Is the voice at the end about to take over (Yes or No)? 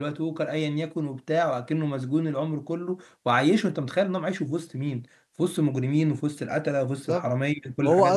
Yes